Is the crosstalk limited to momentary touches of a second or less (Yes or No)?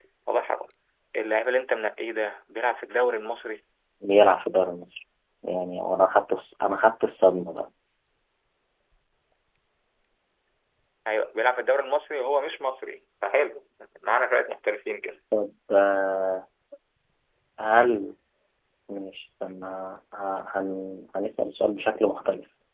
Yes